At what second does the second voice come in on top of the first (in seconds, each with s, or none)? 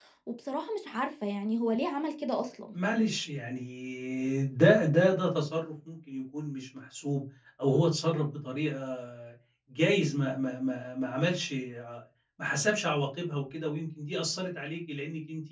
none